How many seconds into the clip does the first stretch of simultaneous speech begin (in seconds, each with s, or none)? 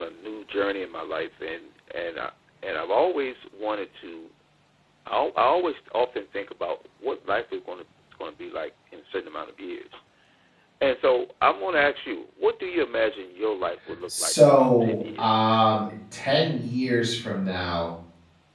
14.1 s